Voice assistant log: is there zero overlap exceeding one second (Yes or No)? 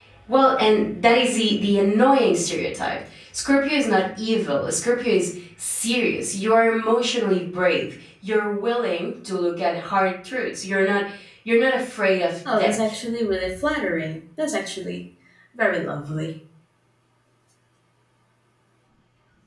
Yes